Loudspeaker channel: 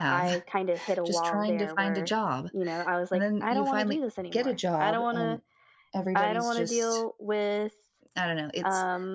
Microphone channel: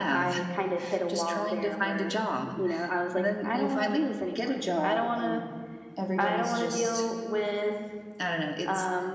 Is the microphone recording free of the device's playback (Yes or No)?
No